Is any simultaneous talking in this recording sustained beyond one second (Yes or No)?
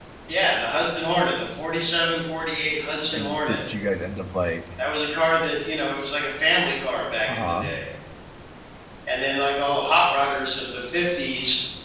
No